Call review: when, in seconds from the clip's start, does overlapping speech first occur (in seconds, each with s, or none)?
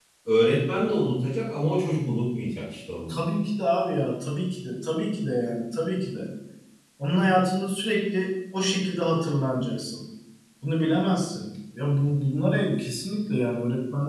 none